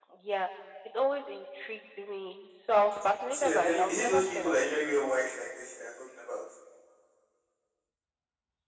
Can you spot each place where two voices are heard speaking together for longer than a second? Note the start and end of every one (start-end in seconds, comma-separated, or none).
3.3-4.7